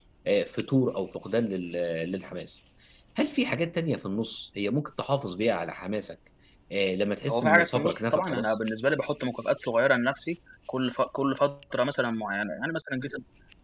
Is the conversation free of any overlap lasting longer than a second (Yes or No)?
No